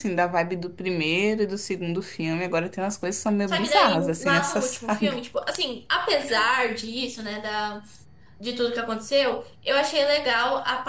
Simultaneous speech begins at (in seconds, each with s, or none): 3.5 s